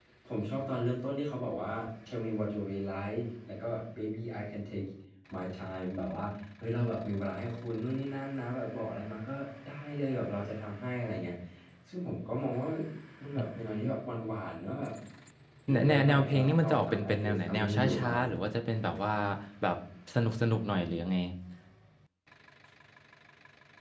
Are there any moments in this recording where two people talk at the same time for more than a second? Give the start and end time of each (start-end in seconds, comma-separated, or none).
15.7-18.4